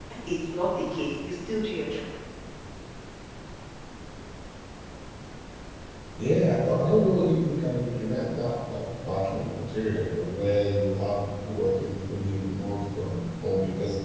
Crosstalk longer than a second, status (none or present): none